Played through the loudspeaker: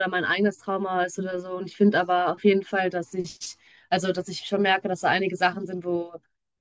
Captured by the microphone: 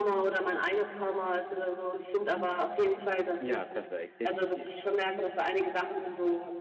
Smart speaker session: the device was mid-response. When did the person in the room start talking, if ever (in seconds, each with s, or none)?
3.4 s